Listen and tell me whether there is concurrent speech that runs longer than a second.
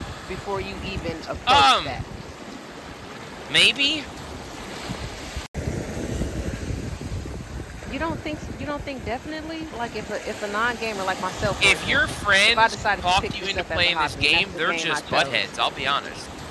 Yes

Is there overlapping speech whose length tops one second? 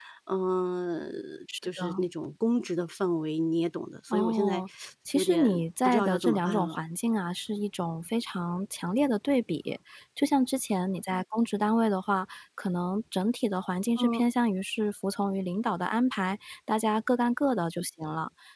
Yes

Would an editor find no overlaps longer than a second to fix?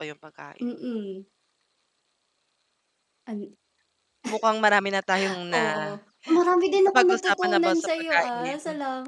No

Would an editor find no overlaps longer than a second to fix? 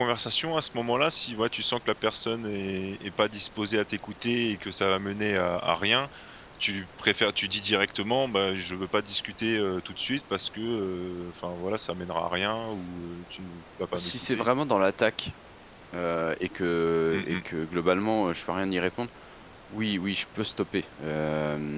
Yes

